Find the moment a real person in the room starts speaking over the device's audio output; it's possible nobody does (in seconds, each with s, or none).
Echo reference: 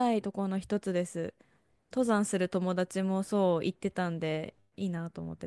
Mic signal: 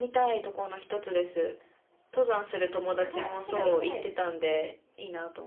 2.9 s